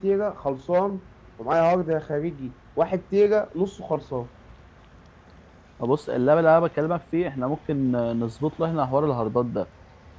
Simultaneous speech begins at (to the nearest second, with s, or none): none